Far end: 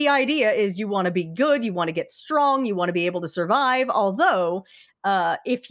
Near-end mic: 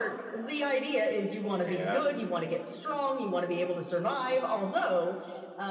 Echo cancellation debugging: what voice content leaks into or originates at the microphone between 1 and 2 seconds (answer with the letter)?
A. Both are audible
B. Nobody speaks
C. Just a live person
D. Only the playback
A